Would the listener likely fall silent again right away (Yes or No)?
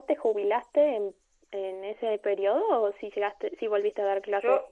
No